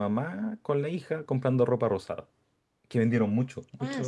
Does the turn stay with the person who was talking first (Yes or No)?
No